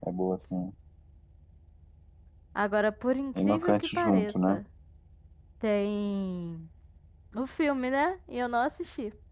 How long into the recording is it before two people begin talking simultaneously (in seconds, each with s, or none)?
3.4 s